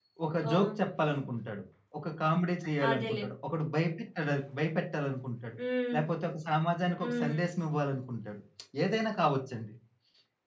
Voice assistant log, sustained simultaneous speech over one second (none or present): none